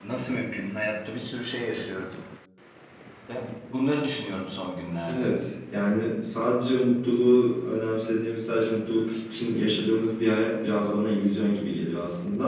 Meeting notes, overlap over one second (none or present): none